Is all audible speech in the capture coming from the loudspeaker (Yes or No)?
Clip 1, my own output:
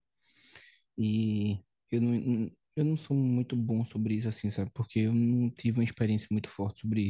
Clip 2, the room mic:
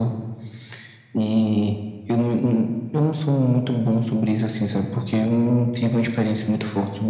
Yes